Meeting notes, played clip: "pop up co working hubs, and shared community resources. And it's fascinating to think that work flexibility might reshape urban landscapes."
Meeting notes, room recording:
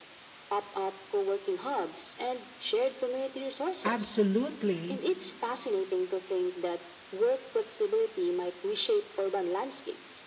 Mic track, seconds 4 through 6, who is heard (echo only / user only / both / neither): both